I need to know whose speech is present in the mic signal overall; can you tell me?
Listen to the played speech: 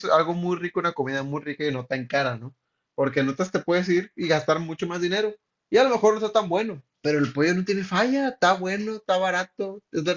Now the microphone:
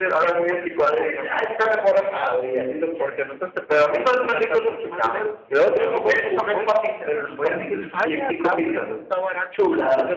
both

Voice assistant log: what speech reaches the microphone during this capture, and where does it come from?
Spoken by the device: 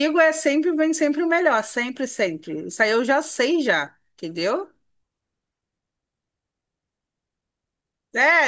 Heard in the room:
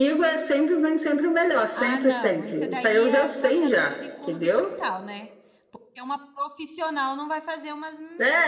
both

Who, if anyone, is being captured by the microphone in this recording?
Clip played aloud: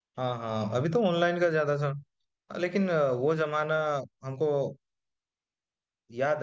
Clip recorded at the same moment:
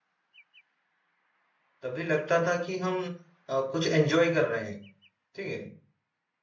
user only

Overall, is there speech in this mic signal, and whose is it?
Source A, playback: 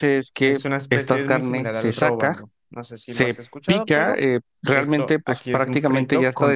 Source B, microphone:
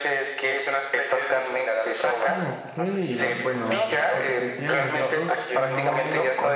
both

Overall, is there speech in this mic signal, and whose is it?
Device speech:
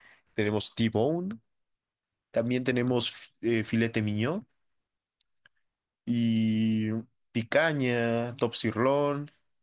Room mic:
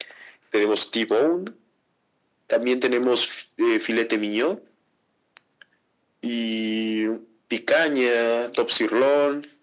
echo only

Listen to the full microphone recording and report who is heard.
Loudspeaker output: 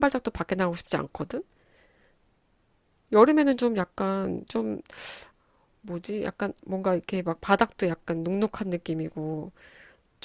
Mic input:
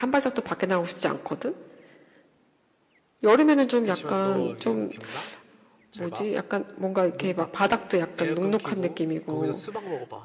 both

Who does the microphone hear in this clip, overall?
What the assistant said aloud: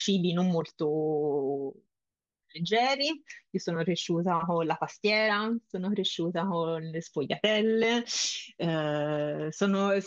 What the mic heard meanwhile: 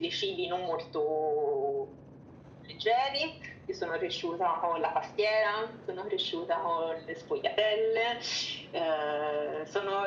echo only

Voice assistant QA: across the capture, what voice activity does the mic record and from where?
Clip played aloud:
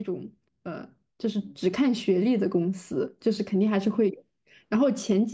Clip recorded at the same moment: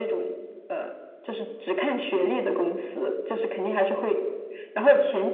echo only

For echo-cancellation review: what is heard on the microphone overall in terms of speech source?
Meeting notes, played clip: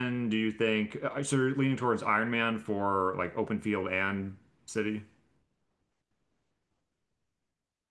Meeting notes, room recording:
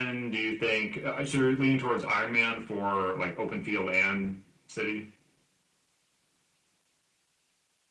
echo only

